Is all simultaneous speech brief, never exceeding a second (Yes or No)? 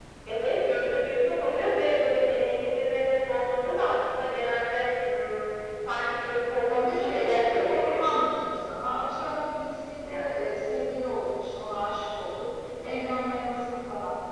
No